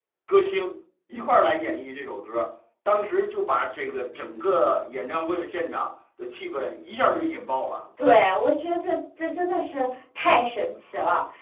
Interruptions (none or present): none